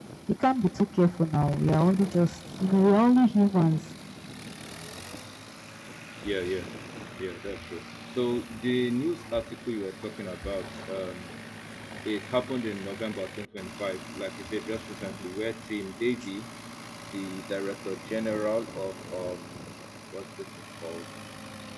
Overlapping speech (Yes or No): No